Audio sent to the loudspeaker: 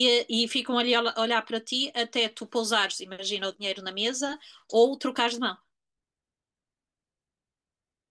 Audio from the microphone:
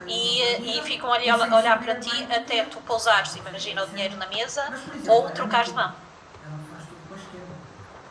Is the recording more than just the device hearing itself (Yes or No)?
Yes